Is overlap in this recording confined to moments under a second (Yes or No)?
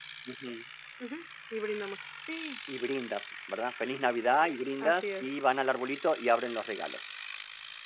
Yes